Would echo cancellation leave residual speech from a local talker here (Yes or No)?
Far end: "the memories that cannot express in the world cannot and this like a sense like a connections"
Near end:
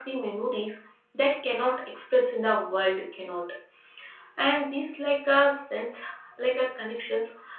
No